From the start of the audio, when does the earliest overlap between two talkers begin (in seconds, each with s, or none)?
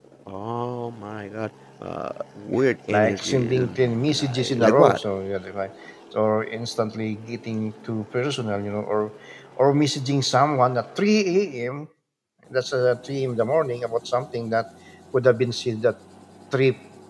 2.9 s